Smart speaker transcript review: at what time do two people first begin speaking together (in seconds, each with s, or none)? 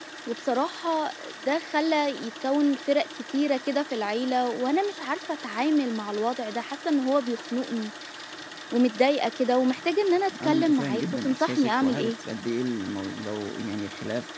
10.3 s